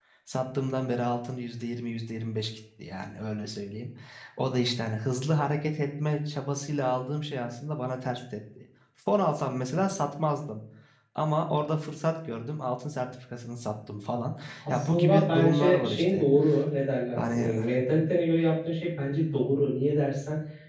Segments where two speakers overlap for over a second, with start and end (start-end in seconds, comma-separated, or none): 14.7-16.2